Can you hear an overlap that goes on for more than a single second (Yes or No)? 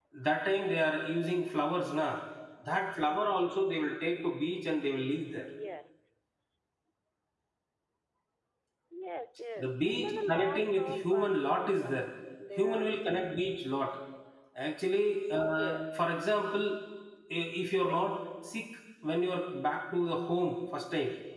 Yes